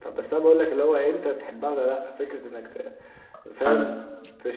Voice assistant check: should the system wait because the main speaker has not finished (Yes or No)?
Yes